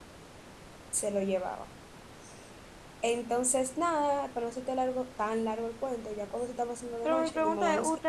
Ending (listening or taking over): taking over